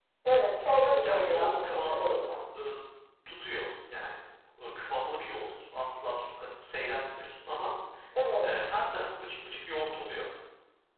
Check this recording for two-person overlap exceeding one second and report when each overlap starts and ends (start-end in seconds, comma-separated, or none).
0.9-2.1